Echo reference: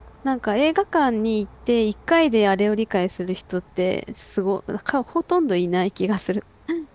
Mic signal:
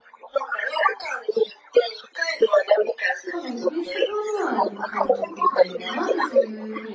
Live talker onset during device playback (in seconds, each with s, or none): 3.2 s